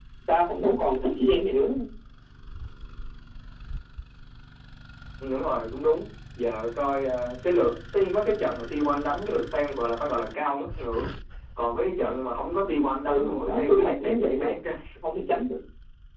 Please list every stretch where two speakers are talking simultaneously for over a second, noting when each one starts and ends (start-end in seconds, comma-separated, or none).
13.1-14.5